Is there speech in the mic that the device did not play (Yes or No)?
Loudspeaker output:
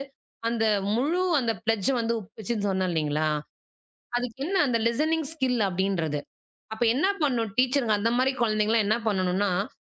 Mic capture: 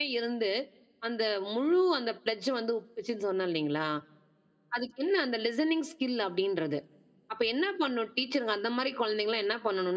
No